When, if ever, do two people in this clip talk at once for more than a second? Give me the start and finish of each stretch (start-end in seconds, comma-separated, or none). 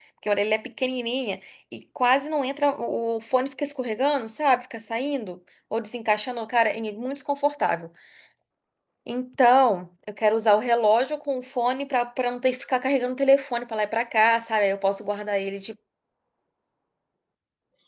none